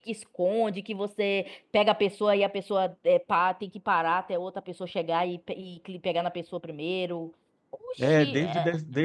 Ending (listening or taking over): taking over